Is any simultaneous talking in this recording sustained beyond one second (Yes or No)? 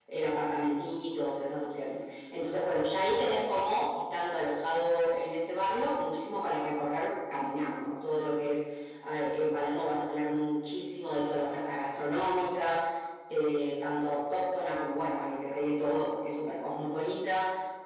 No